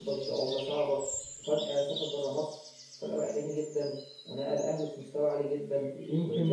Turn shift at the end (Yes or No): Yes